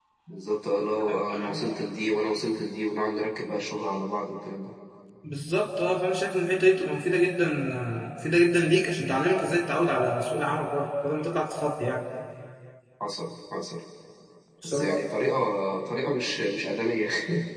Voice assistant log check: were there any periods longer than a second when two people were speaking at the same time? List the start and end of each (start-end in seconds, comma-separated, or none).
none